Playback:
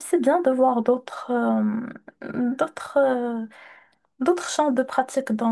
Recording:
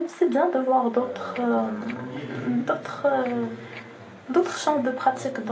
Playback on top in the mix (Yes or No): Yes